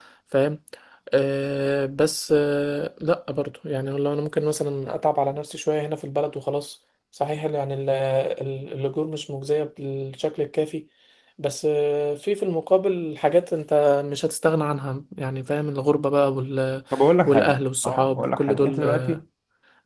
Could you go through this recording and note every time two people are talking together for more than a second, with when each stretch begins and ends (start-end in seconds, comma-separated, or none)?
17.9-19.2